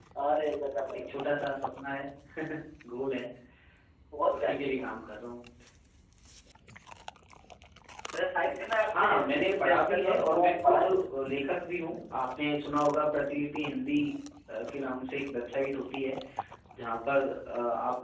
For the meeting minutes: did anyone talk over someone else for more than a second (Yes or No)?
Yes